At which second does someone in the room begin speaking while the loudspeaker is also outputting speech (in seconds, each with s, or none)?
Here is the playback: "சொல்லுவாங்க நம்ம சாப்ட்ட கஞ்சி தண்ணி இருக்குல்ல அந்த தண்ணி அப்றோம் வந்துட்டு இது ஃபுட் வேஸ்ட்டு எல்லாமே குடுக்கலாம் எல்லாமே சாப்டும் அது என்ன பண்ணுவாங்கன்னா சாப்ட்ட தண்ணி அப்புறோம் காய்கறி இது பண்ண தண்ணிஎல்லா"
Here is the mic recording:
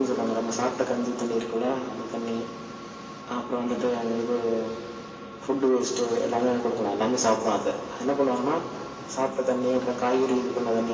none